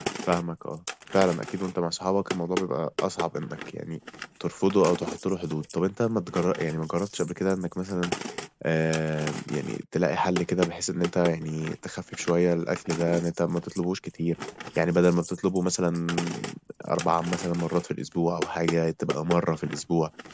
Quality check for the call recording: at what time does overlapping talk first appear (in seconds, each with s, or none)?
none